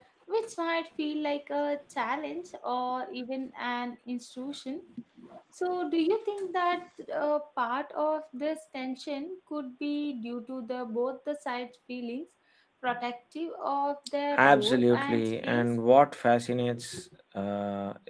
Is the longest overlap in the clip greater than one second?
Yes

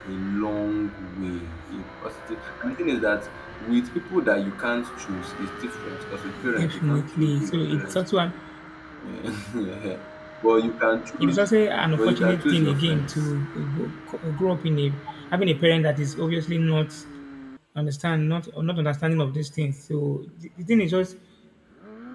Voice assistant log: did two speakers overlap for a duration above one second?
Yes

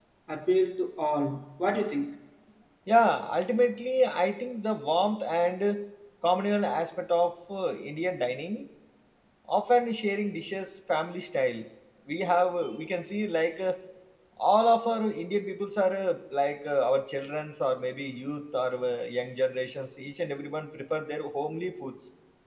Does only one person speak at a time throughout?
Yes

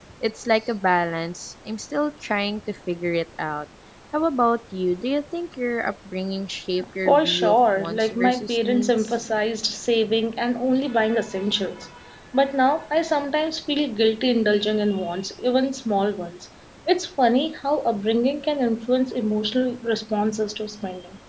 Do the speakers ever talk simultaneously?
Yes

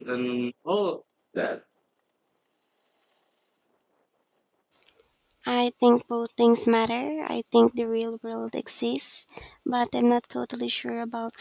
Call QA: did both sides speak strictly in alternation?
Yes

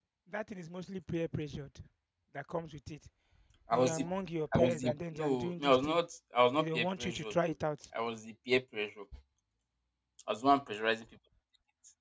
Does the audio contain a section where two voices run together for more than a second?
Yes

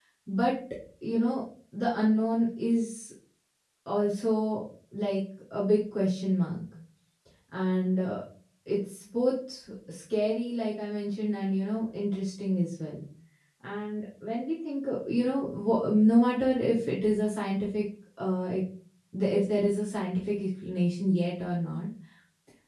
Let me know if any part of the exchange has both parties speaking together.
No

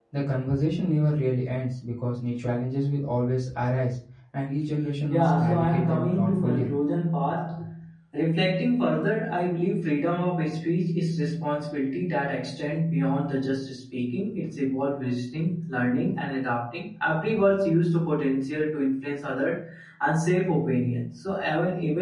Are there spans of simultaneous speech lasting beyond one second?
Yes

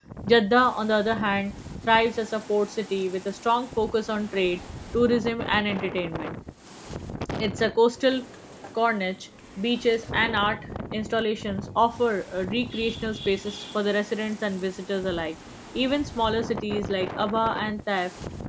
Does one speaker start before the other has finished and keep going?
No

